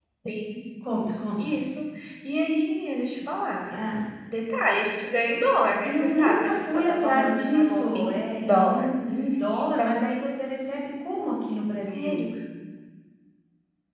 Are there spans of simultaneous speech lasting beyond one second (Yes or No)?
Yes